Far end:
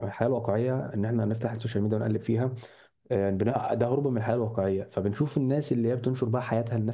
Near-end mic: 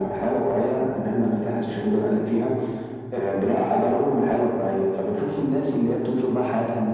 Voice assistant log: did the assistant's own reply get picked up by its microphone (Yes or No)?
Yes